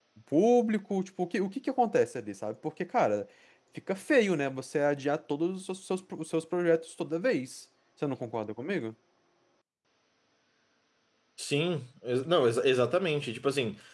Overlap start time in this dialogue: none

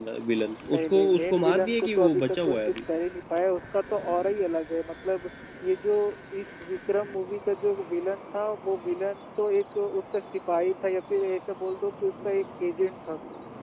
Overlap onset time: 0.7 s

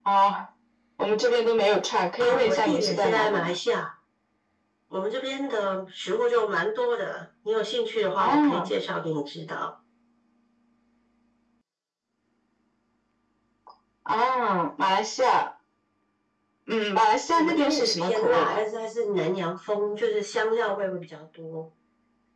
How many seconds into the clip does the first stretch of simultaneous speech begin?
2.2 s

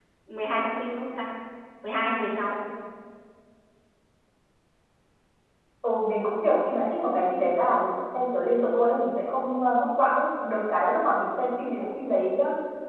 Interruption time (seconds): none

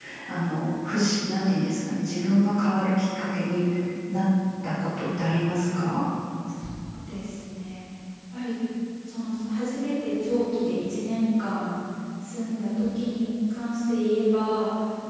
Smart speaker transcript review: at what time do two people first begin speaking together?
none

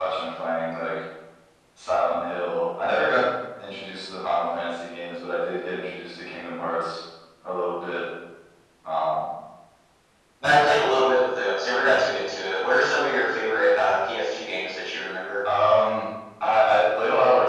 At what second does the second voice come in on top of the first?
none

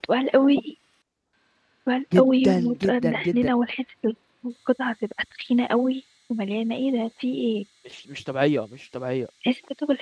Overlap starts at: 2.2 s

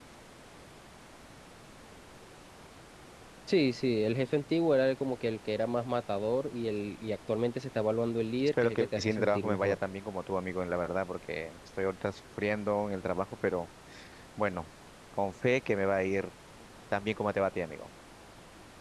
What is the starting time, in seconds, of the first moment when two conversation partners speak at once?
8.4 s

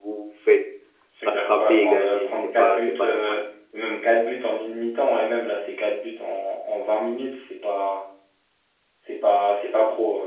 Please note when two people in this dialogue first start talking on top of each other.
1.2 s

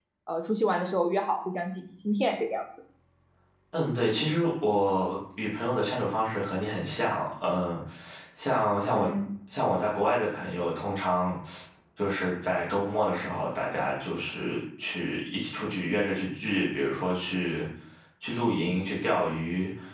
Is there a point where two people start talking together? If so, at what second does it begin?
none

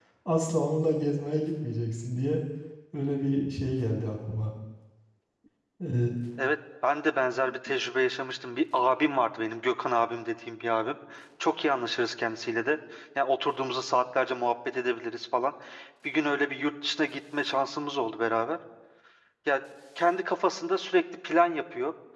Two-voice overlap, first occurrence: none

